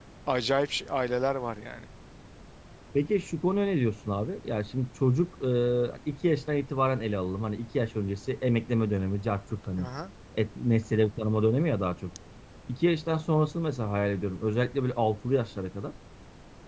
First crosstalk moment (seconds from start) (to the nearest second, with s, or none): none